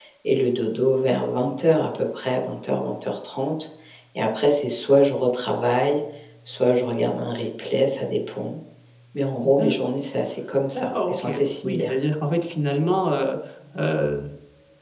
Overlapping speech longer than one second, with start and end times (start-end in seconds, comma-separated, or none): 10.7-11.9